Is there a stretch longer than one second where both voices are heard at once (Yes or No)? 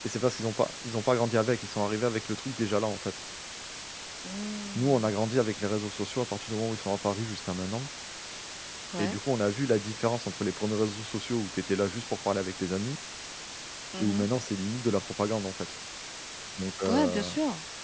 No